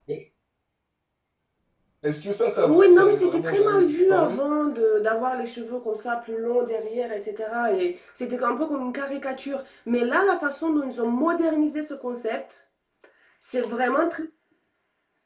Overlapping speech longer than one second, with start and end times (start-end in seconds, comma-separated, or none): 2.6-4.4